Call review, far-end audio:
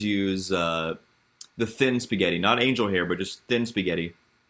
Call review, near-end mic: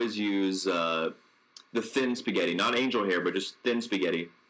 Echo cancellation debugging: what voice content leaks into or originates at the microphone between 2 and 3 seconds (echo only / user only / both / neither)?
echo only